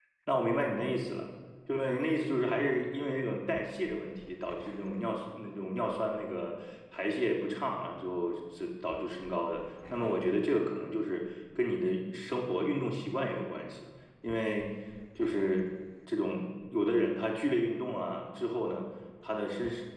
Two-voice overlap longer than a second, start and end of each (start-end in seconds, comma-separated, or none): none